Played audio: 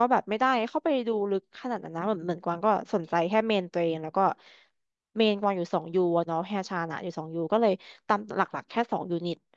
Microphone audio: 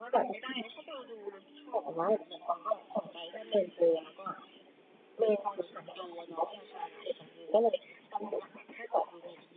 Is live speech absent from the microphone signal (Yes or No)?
Yes